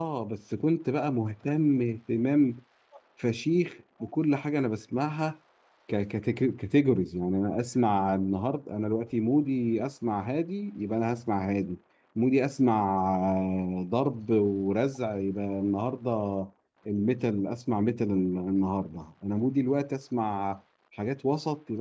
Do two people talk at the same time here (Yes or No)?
No